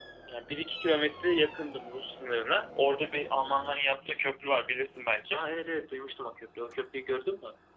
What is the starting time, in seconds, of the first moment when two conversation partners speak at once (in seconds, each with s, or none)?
none